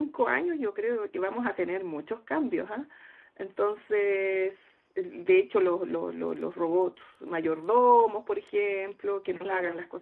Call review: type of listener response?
listening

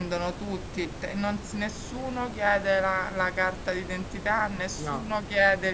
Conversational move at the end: listening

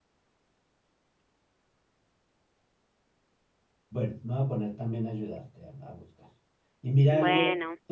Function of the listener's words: listening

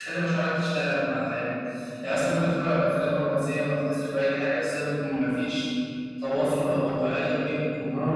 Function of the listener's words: taking over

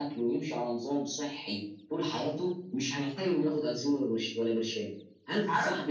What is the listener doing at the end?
taking over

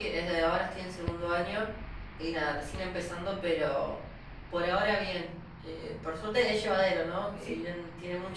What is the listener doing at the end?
listening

